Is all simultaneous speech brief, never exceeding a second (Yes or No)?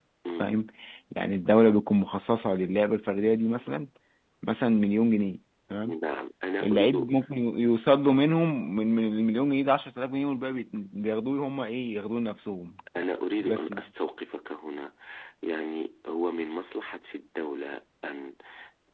Yes